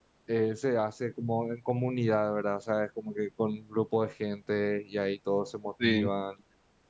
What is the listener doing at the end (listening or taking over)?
listening